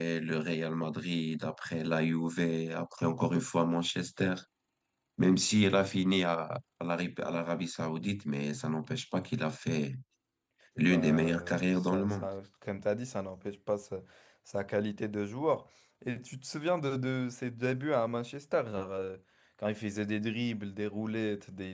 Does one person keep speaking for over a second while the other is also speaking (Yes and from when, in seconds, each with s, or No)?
Yes, from 10.8 s